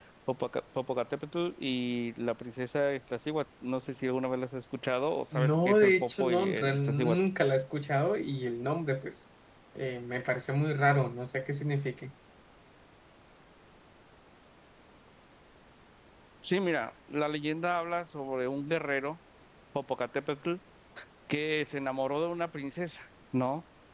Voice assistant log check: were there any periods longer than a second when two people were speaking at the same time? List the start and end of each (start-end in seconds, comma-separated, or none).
5.3-7.2